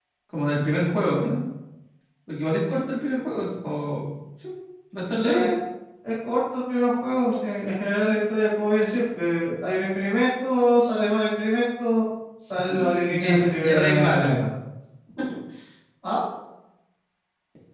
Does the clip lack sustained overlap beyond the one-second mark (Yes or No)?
No